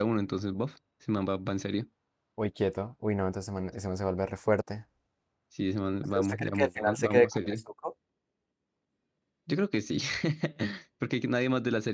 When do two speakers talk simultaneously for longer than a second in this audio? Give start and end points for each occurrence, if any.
6.1-7.6

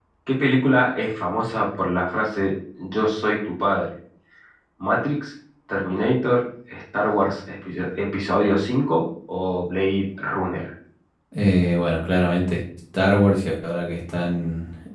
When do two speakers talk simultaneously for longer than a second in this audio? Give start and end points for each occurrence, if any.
none

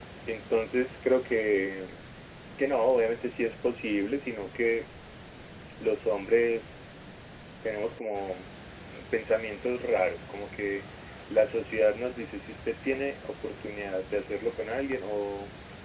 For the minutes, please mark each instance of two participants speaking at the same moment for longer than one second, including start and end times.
none

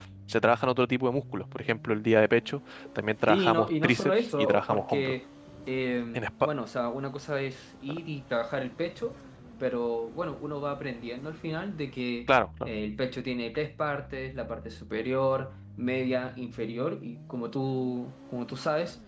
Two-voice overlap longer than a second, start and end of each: 3.3-5.1

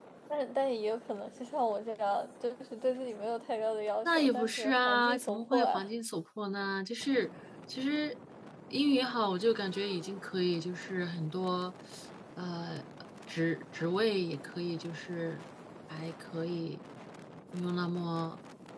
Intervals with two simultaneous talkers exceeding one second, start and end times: 4.0-5.8

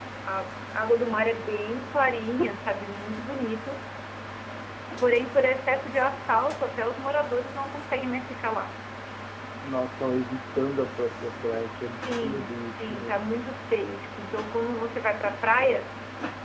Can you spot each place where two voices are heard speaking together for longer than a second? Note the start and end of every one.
12.0-13.2

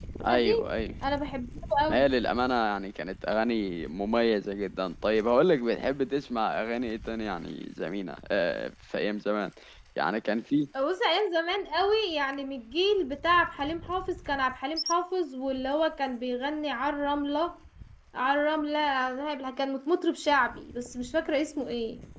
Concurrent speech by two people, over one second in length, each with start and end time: none

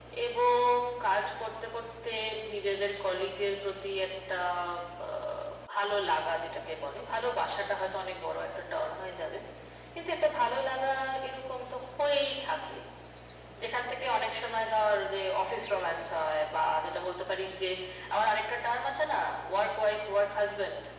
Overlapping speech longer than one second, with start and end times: none

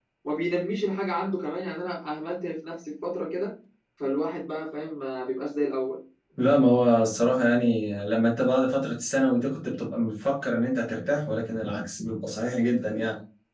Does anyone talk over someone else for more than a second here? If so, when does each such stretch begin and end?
none

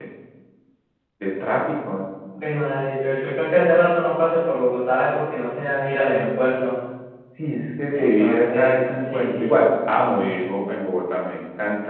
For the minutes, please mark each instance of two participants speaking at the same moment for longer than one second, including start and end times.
8.0-9.5

